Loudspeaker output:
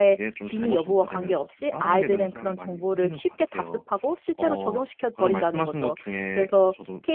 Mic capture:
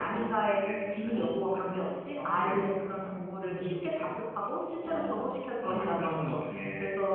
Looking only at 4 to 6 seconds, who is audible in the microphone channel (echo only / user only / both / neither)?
echo only